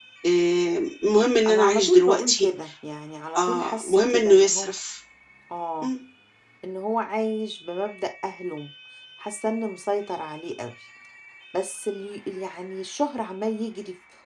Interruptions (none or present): present